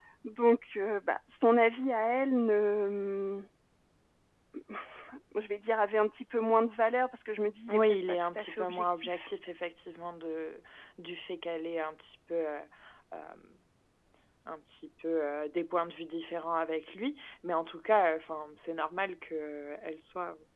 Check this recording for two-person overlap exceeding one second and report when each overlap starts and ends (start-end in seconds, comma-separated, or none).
7.7-9.3